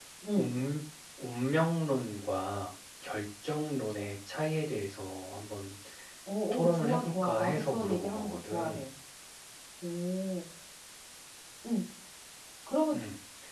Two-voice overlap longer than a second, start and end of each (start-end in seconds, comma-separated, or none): 6.5-8.8